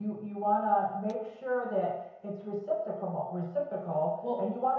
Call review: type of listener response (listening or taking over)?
listening